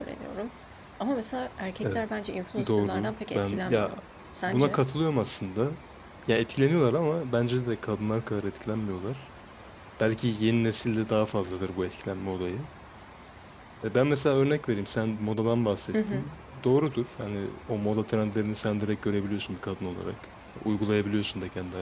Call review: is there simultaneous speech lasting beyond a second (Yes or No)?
Yes